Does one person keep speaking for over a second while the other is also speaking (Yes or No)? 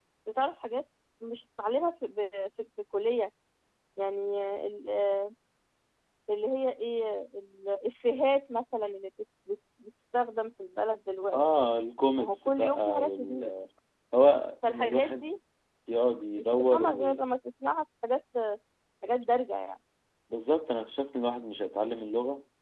Yes